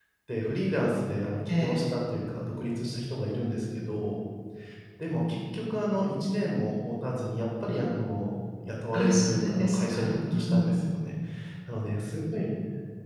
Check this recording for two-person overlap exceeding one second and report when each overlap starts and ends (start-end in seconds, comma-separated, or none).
8.9-11.0